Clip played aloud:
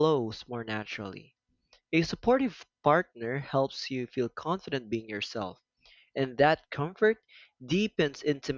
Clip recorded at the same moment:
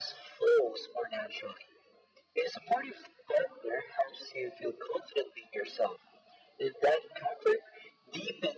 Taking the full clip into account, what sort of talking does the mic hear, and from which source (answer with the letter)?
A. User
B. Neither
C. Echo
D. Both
C